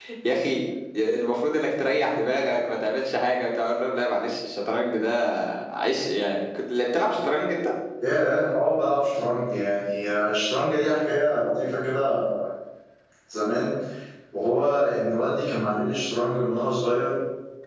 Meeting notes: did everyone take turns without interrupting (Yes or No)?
Yes